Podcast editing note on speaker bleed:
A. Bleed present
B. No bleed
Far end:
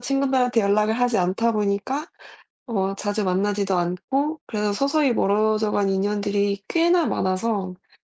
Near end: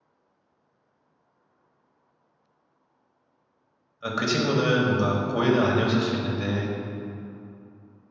B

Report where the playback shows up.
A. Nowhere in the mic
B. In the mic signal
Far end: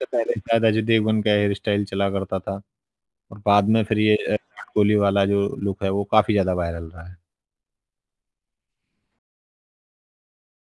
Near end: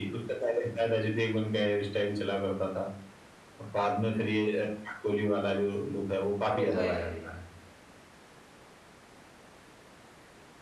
B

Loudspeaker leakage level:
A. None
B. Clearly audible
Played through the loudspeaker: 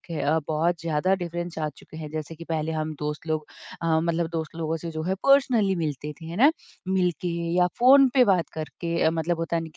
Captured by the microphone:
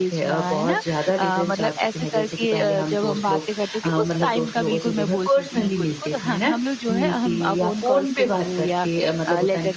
B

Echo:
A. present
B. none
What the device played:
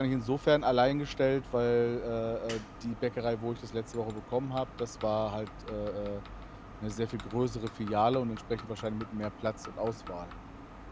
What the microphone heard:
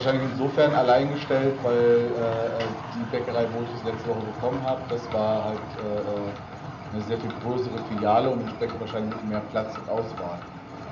A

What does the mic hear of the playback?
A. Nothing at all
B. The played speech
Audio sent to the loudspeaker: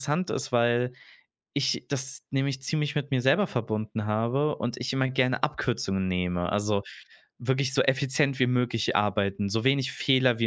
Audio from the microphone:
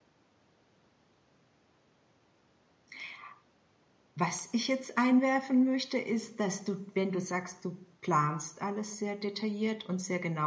A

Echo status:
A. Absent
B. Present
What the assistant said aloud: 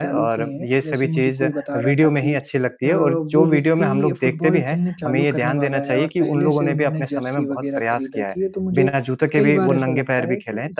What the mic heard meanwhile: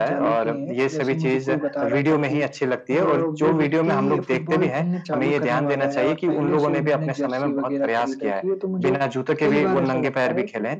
B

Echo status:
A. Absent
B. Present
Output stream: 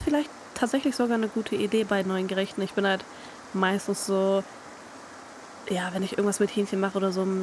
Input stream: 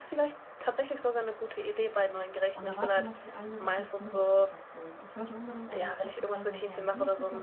B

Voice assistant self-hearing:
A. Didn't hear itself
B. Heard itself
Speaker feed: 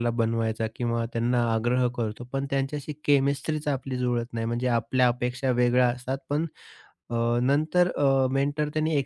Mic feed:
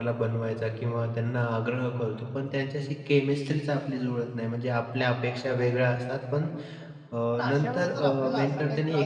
B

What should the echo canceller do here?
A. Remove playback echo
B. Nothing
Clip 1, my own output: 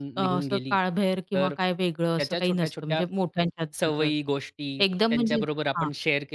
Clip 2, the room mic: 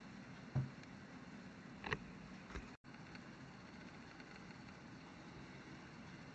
B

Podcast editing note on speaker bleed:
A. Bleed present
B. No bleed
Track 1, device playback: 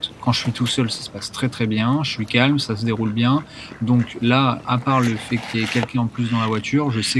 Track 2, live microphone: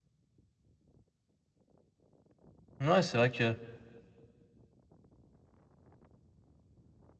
B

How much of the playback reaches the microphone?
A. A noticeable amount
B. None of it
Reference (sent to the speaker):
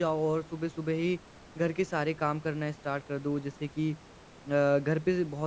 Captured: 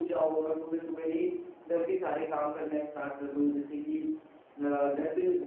A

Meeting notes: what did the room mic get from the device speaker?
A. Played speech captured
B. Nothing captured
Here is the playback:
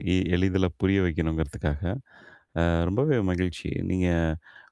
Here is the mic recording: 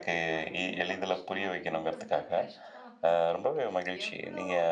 A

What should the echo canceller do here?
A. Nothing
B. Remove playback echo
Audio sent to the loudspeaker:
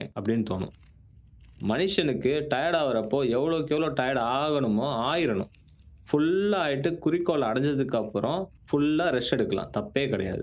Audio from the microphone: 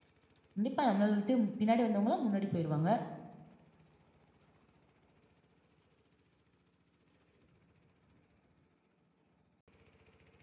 A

